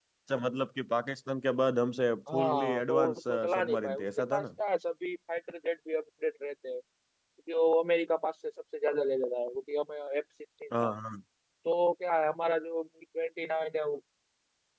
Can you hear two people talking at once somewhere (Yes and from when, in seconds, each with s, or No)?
Yes, from 2.3 s